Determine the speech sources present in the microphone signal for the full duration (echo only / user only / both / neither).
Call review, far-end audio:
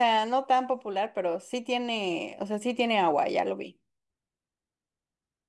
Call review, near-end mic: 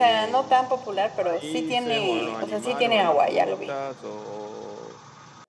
both